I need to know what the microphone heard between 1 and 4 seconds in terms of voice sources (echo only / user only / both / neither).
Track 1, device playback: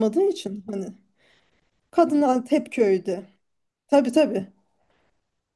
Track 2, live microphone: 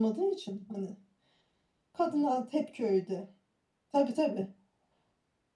echo only